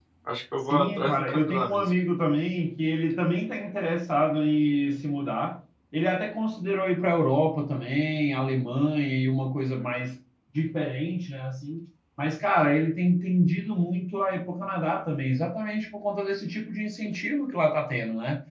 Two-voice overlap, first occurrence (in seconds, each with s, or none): 0.7 s